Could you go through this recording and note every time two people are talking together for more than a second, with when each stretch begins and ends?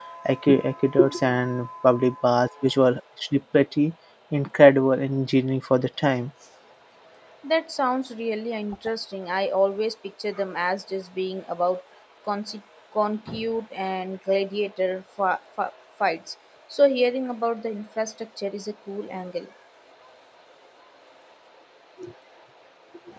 none

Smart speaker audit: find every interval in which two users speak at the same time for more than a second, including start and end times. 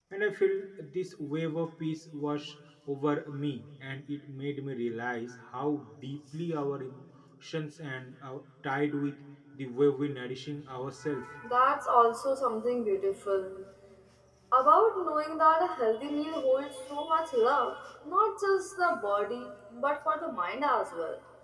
none

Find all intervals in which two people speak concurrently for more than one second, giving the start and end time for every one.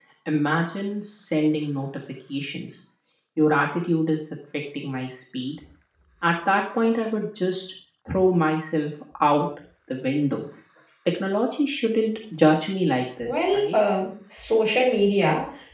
none

